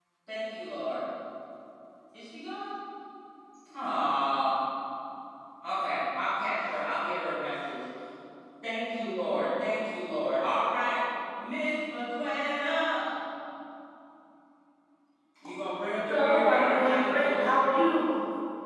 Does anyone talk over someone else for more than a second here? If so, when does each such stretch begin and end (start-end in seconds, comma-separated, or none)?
16.1-17.6